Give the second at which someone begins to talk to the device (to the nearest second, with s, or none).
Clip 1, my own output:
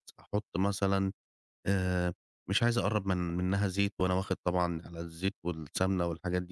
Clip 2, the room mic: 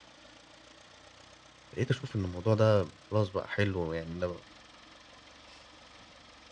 2 s